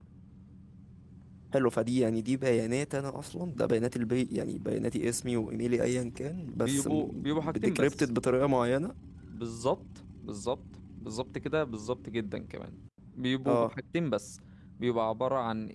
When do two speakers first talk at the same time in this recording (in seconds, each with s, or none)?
6.6 s